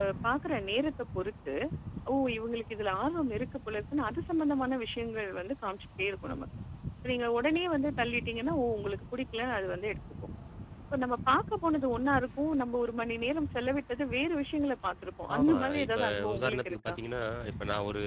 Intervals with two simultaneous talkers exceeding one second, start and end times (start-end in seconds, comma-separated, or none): 15.3-16.9